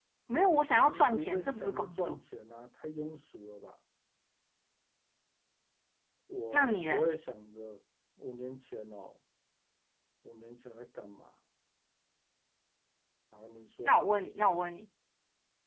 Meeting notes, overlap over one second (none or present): present